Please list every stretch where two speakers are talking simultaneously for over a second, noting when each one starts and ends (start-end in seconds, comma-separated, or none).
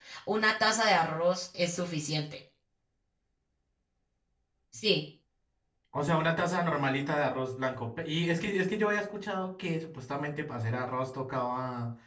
none